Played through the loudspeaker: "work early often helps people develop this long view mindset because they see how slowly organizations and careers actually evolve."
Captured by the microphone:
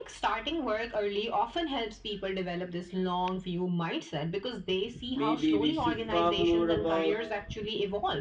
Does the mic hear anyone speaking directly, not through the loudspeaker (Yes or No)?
Yes